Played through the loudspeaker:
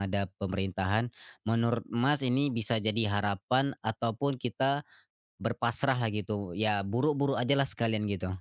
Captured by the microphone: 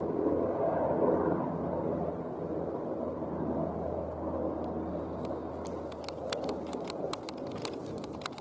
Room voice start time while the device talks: none

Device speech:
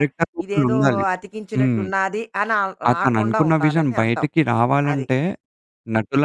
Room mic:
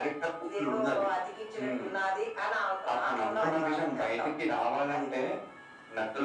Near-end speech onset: 3 s

